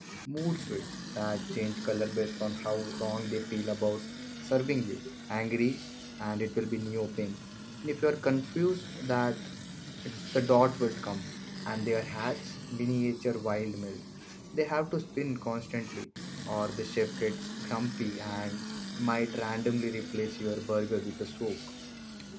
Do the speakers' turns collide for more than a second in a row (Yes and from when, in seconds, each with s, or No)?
No